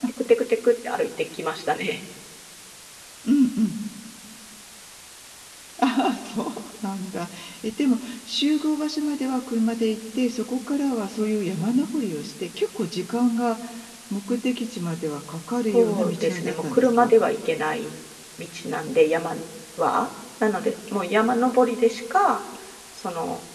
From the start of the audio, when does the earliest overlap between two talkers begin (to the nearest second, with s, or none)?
16 s